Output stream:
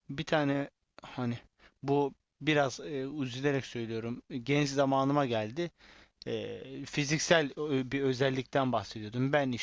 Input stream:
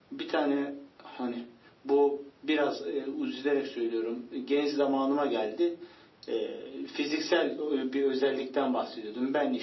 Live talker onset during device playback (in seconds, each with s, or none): none